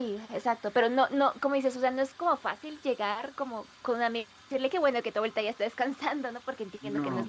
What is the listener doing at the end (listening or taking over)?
taking over